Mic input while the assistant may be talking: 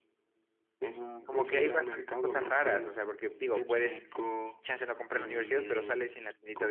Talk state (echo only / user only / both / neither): both